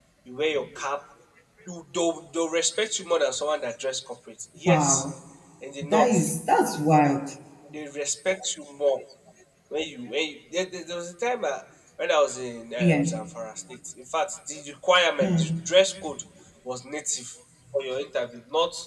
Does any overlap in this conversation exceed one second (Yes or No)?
No